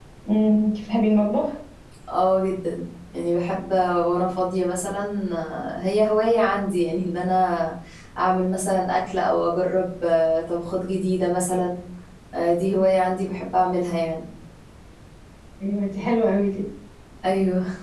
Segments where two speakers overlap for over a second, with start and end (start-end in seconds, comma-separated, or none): none